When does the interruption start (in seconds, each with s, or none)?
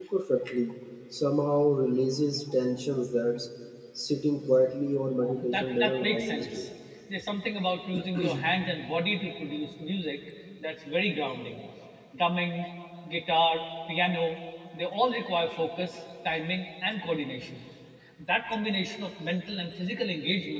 5.2 s